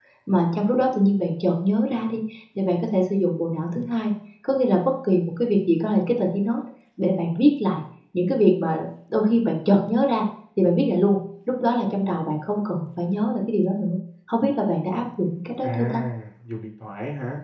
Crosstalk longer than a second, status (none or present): none